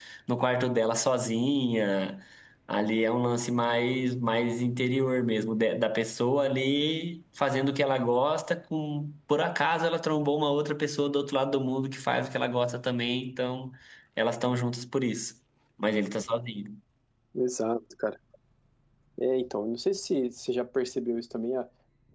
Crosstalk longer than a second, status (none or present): none